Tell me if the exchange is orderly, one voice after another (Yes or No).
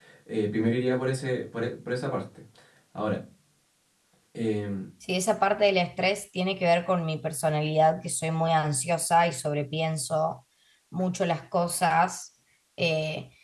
Yes